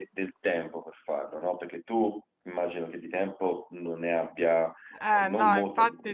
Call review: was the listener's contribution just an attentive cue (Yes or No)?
No